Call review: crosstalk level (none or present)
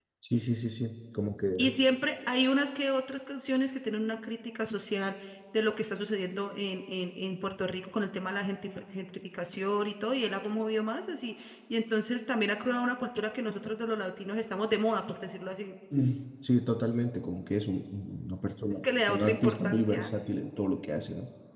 present